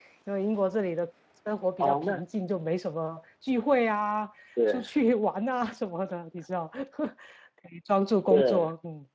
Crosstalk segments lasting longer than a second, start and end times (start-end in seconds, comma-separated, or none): none